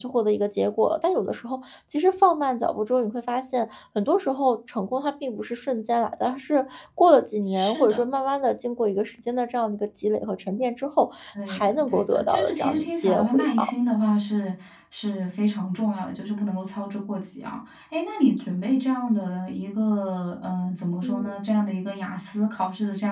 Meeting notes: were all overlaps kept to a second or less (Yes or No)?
No